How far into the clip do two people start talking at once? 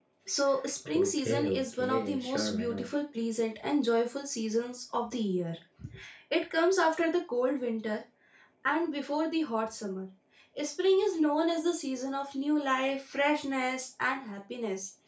0.9 s

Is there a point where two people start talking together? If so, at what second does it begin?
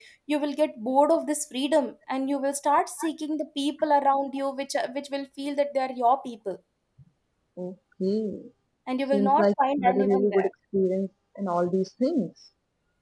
9.1 s

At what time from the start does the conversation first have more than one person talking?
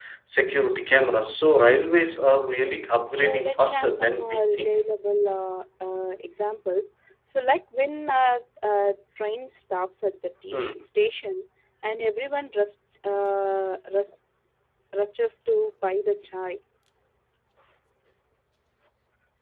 3.2 s

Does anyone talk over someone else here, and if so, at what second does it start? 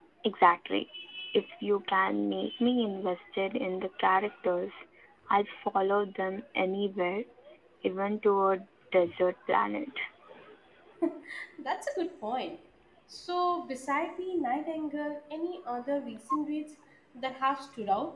none

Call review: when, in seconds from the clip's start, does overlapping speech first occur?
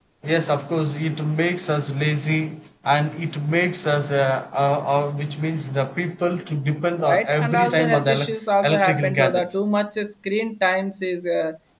7.0 s

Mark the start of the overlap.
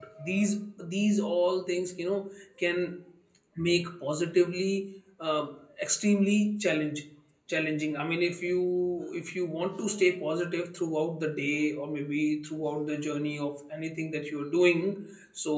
none

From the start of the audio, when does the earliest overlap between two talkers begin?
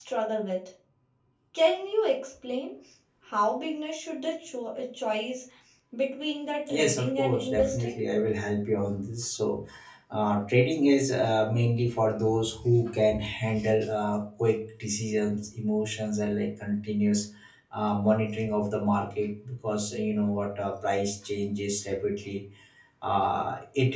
6.7 s

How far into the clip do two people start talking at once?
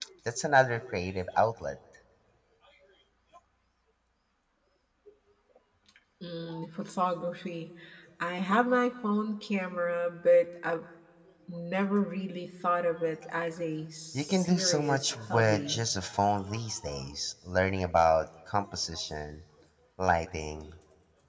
14.1 s

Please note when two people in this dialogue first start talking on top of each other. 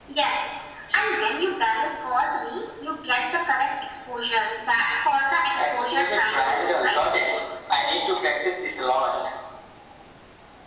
5.6 s

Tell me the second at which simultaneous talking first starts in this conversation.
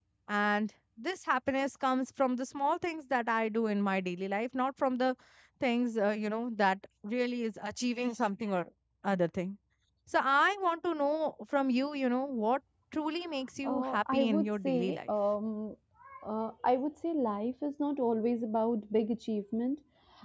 13.6 s

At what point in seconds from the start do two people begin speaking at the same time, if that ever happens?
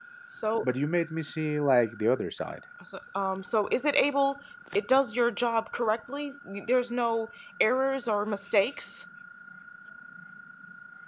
none

